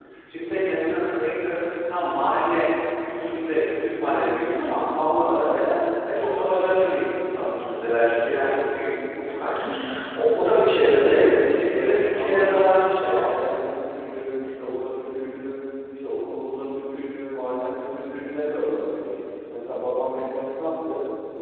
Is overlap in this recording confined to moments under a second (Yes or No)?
No